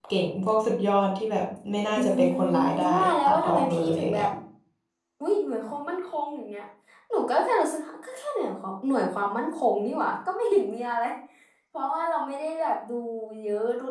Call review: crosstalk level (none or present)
present